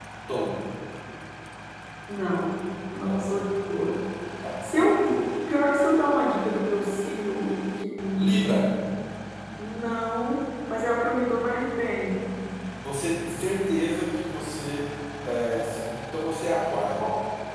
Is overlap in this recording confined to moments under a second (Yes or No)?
Yes